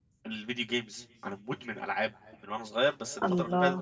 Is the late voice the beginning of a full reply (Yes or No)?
No